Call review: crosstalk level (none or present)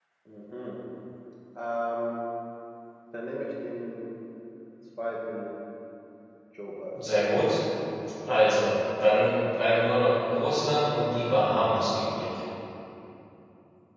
none